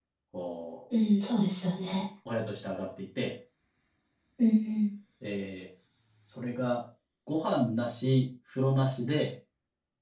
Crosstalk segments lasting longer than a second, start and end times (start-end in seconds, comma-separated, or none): none